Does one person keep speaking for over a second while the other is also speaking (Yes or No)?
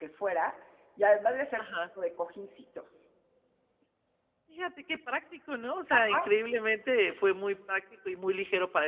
No